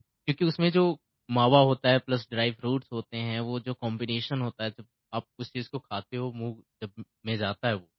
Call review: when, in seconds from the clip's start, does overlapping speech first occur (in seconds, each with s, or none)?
none